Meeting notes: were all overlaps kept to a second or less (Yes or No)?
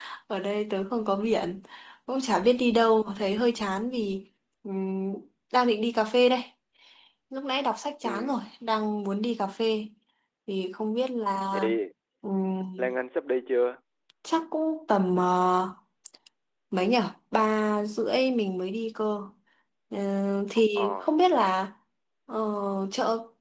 Yes